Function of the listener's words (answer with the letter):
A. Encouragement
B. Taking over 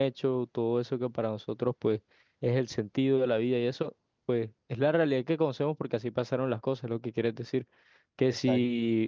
A